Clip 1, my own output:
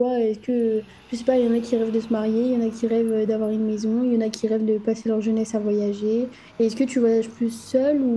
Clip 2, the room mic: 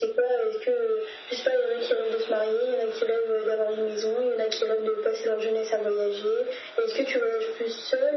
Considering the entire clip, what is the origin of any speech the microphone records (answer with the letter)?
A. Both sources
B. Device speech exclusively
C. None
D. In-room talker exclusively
B